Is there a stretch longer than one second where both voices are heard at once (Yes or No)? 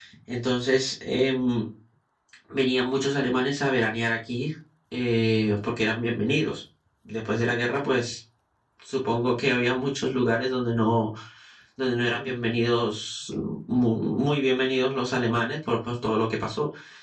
No